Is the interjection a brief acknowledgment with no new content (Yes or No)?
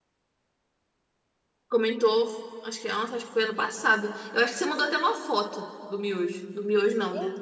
No